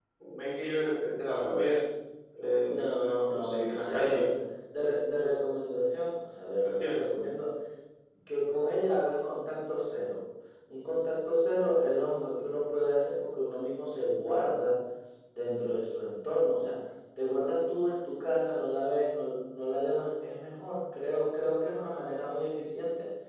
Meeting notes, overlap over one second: present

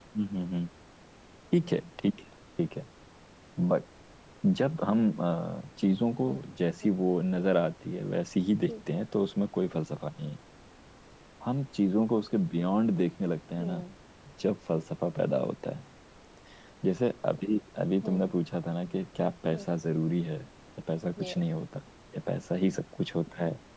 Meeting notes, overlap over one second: none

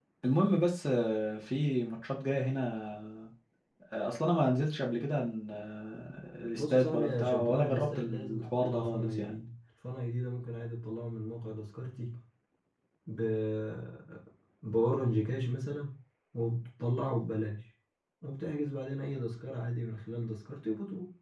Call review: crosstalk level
present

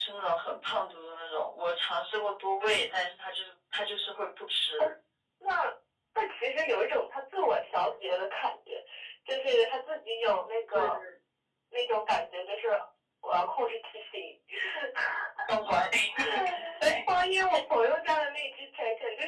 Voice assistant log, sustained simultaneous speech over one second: none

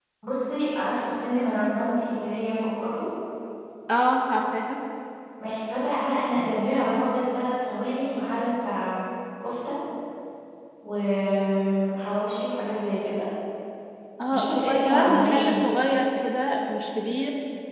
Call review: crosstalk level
present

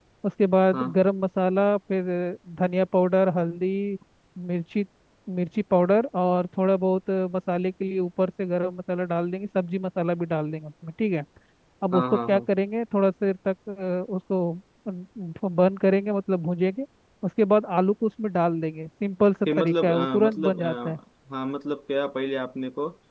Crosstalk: present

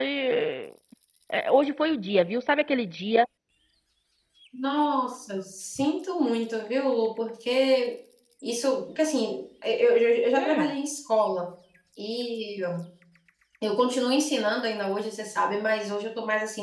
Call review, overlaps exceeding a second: none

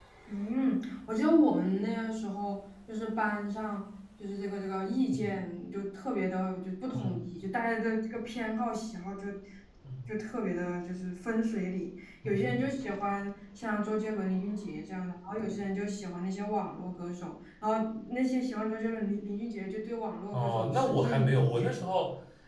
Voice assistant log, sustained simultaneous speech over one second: present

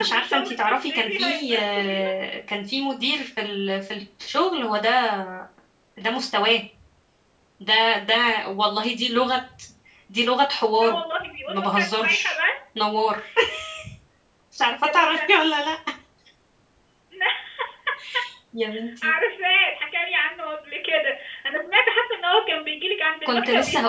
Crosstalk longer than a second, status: present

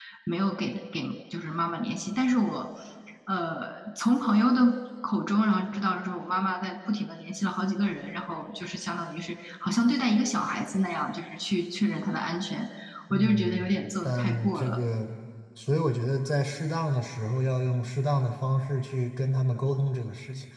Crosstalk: present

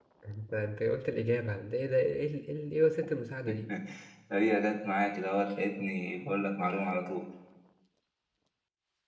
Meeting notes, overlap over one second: none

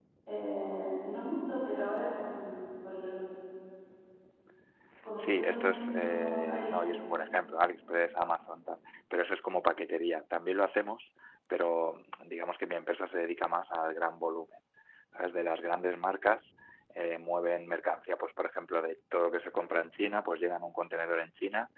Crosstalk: present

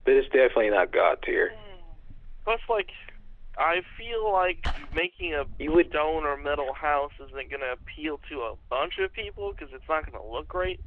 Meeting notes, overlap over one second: none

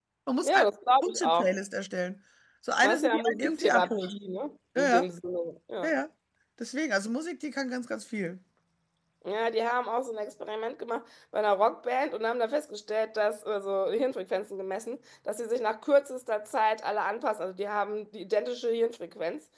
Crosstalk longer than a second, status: present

